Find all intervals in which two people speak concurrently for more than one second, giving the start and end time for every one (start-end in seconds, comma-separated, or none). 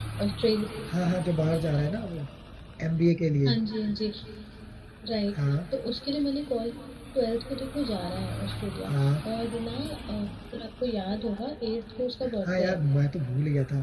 none